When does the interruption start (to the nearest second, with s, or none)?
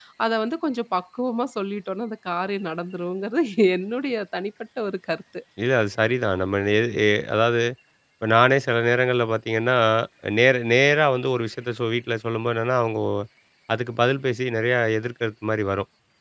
none